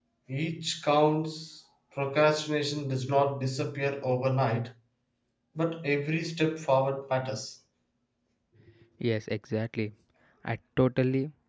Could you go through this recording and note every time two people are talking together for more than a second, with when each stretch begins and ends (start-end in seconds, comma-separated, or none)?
none